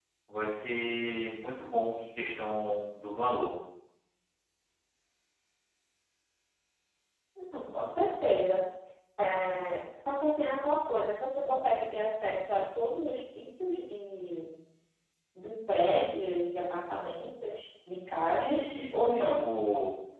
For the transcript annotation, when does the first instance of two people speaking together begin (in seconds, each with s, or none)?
18.1 s